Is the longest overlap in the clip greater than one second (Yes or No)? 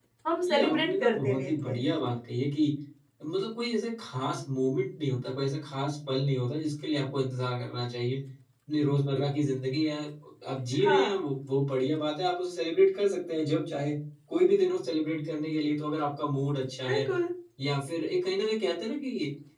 Yes